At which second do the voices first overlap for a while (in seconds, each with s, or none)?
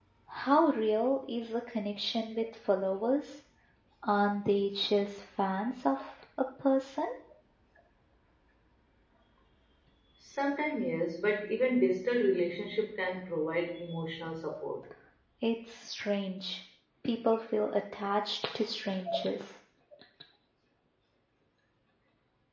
none